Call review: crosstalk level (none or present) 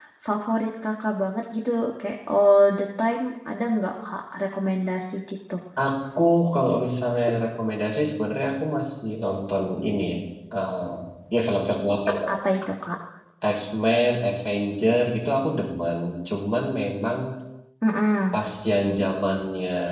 none